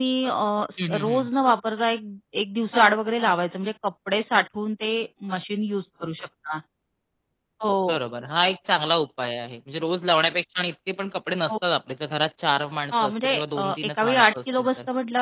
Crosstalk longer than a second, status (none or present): present